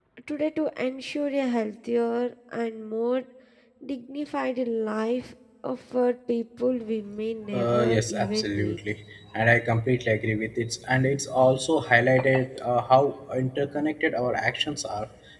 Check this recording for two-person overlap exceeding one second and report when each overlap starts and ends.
7.5-8.8

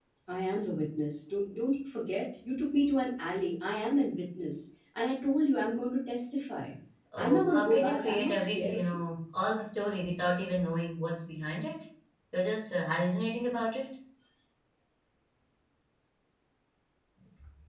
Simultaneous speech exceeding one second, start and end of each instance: 7.2-9.0

